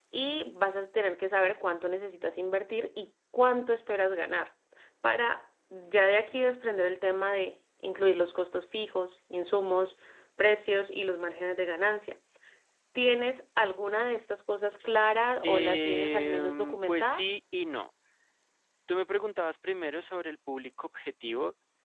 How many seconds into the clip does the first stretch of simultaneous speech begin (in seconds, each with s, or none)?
15.4 s